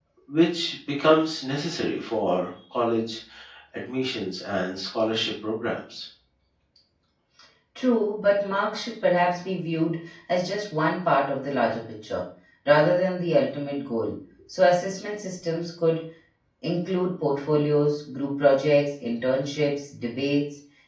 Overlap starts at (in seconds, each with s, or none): none